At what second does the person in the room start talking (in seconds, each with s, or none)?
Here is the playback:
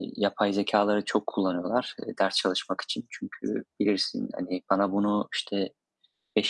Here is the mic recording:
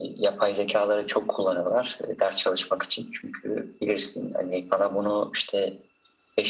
none